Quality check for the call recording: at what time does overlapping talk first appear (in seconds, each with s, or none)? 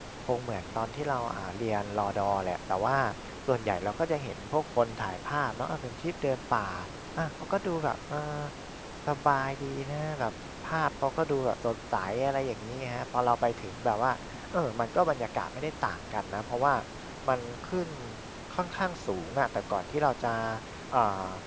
none